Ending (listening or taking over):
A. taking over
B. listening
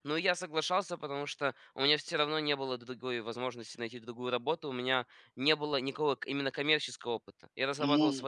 B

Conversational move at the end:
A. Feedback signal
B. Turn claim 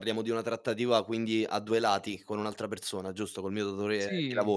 B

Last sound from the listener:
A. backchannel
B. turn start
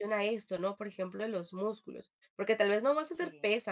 A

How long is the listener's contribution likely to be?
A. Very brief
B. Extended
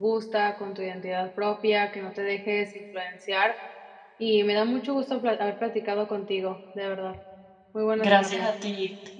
B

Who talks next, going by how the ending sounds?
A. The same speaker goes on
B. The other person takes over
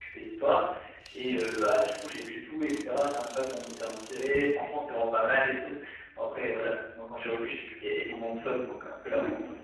B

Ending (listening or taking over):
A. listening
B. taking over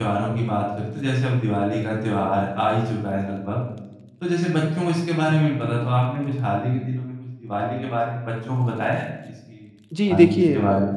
B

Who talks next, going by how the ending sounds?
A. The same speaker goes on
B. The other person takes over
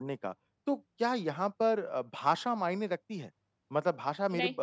A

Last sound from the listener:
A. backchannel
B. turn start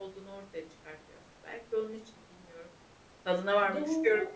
B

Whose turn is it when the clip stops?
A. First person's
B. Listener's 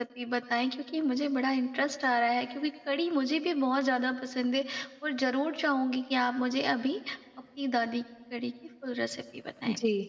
B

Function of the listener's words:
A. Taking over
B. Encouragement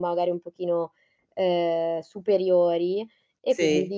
B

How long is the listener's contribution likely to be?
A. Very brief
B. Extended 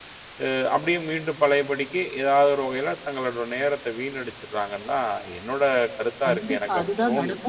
B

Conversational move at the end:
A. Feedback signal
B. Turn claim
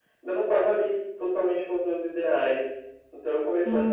B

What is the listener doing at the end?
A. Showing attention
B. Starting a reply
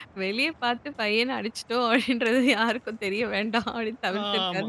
B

